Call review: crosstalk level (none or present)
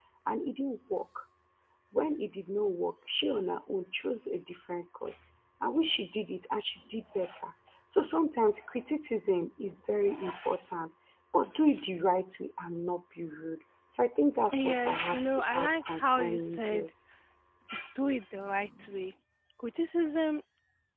present